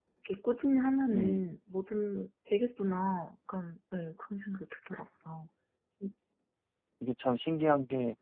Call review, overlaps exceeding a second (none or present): none